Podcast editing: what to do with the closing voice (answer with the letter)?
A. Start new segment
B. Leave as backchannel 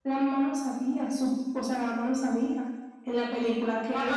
A